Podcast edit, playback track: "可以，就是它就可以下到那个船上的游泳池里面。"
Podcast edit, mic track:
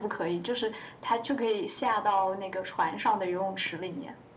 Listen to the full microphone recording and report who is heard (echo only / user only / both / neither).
echo only